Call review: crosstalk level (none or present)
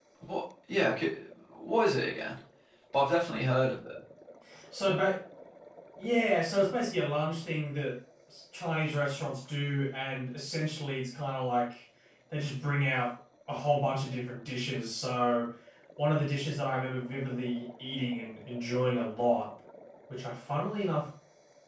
none